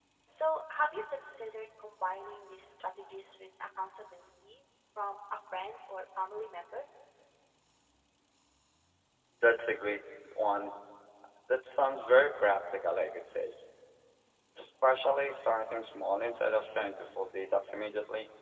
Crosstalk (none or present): none